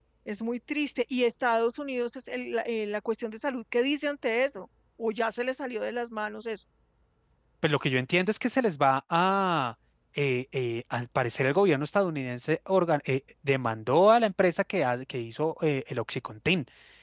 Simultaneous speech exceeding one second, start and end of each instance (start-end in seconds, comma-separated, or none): none